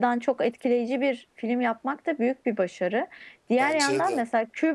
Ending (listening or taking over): listening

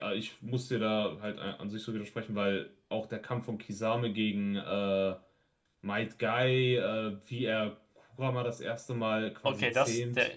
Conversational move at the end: taking over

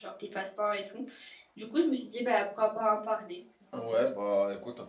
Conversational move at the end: taking over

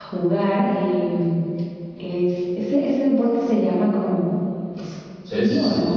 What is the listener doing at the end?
taking over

